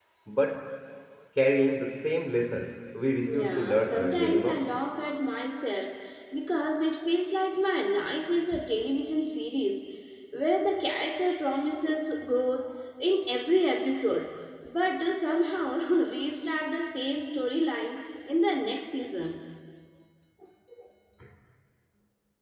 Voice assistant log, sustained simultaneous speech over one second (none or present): present